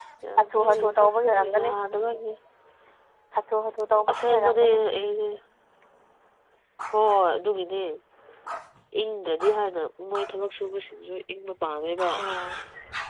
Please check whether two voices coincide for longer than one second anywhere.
Yes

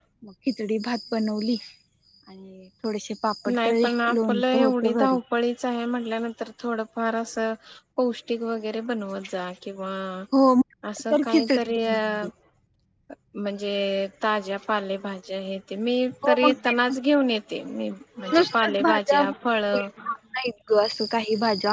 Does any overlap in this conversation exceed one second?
Yes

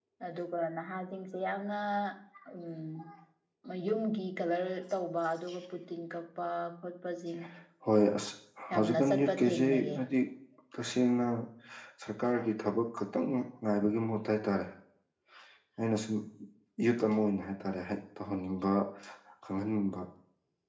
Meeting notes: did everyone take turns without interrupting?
No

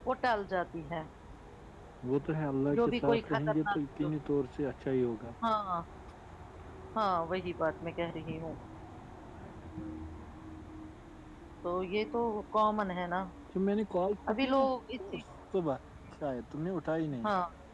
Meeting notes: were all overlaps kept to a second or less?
No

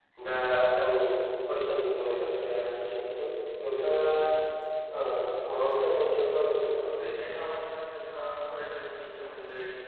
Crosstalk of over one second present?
No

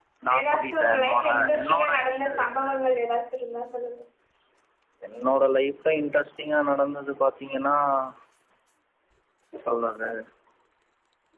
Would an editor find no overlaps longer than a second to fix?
No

